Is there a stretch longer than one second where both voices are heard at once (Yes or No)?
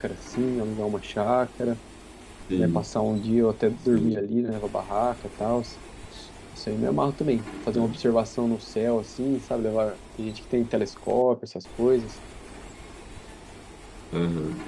No